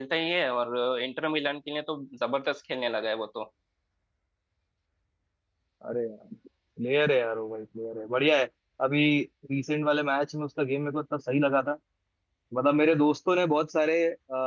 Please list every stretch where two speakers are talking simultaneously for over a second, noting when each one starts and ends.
none

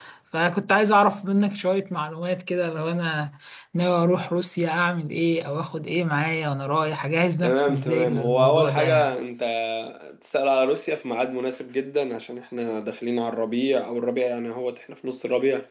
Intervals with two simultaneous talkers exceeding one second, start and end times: 7.4-9.2

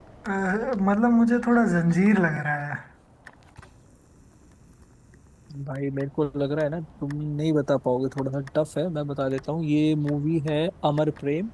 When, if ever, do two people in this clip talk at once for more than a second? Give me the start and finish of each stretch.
none

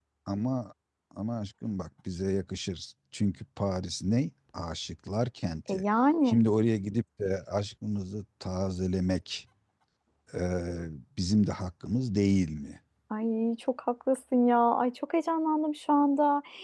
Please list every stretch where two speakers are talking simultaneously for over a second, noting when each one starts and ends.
none

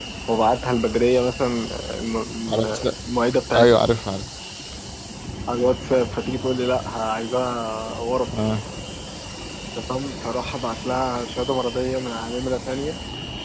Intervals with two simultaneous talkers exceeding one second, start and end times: none

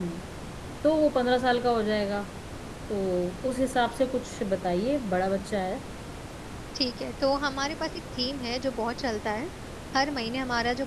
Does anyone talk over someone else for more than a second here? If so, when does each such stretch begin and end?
none

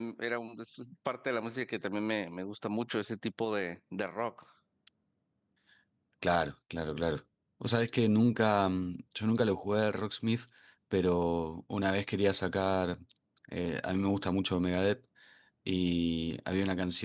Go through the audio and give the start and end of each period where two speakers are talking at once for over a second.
none

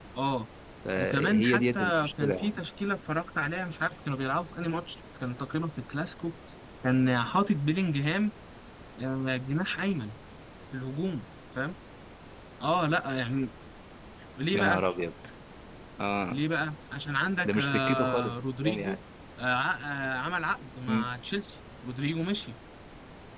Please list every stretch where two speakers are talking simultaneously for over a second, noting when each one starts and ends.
1.0-2.6, 17.4-19.0

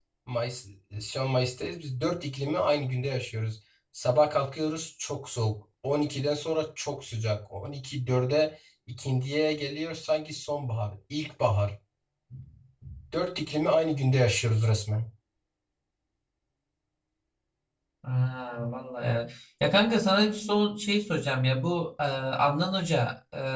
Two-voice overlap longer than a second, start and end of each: none

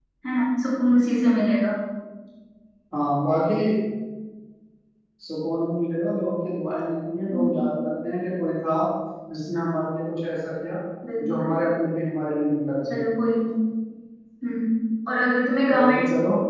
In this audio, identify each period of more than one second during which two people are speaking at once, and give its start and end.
none

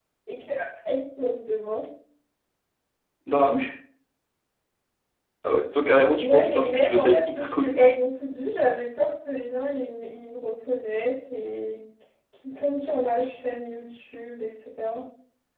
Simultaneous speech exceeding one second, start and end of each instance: 6.1-7.9

